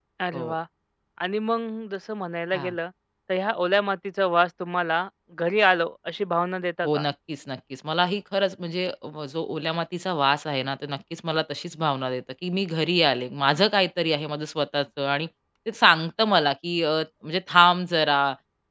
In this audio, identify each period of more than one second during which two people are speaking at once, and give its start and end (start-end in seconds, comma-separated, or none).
none